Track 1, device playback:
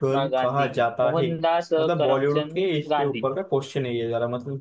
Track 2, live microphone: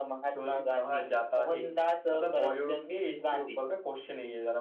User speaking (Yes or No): No